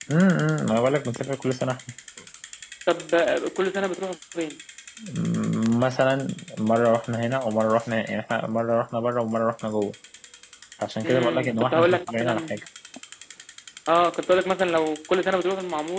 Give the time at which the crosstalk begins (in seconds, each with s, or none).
11.0 s